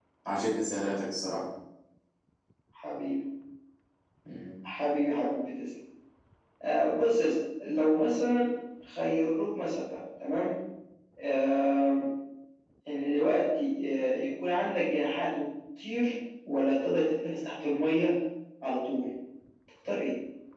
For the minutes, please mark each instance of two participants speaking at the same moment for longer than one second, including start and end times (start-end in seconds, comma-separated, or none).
none